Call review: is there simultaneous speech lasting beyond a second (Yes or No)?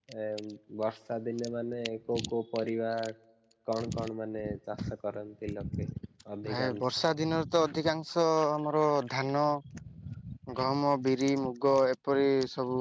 No